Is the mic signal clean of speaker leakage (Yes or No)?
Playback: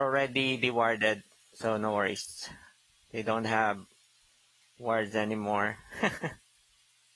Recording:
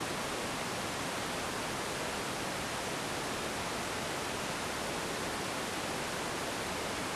Yes